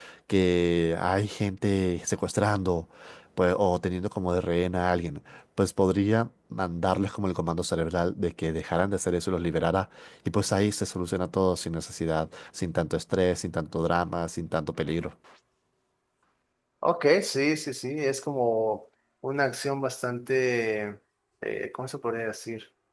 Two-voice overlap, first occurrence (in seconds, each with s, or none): none